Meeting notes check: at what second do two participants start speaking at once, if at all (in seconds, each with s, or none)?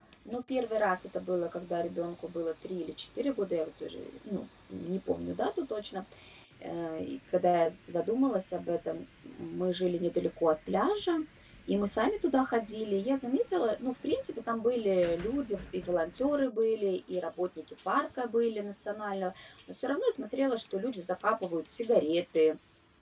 none